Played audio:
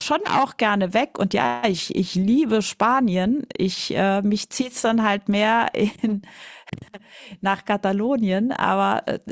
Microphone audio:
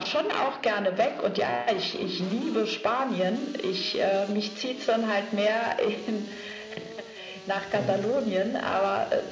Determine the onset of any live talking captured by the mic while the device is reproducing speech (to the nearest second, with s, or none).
8 s